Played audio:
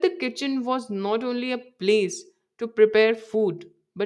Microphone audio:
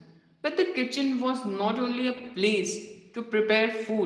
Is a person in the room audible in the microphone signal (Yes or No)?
No